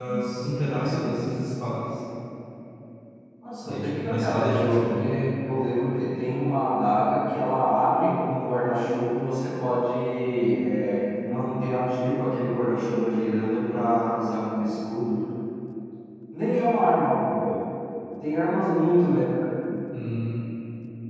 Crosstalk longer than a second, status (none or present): present